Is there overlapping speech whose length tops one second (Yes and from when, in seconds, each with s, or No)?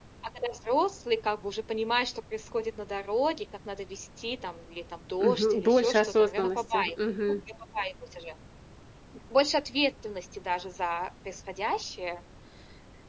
Yes, from 5.2 s